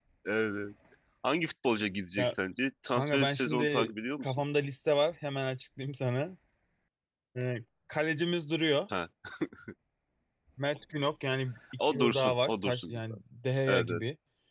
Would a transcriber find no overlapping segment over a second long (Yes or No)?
No